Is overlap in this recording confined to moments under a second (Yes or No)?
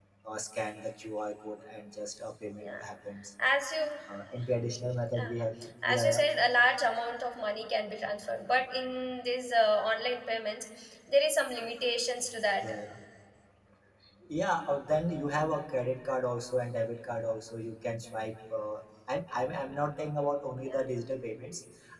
Yes